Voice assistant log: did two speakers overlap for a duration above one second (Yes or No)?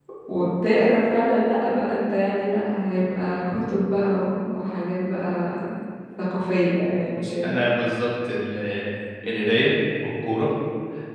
No